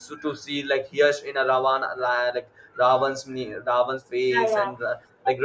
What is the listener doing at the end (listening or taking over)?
listening